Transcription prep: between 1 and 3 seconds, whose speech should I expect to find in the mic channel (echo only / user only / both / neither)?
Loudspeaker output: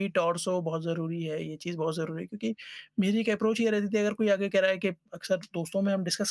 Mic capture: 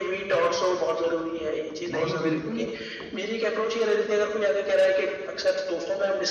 both